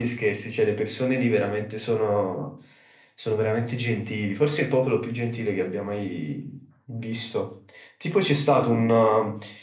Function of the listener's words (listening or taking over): listening